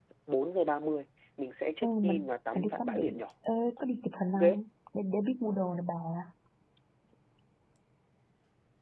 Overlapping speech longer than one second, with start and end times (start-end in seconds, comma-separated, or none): 1.8-3.2